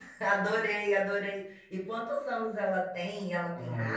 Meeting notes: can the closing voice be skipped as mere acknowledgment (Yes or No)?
No